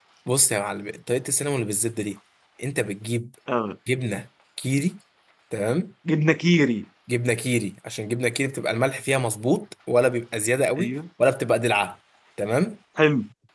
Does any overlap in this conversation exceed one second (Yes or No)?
No